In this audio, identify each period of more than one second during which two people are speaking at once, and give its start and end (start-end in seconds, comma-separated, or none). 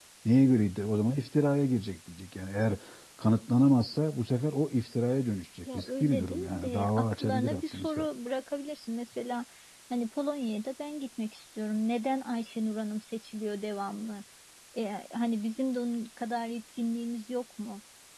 5.6-8.1